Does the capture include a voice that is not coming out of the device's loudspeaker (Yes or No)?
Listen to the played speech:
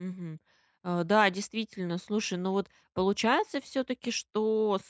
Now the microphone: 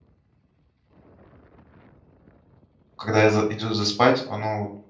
Yes